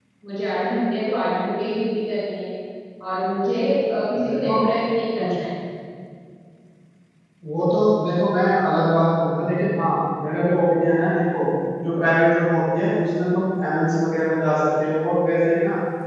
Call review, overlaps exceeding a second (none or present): none